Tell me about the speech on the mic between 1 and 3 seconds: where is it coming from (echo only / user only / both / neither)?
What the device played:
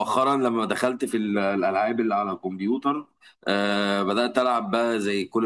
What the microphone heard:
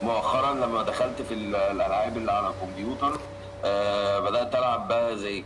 echo only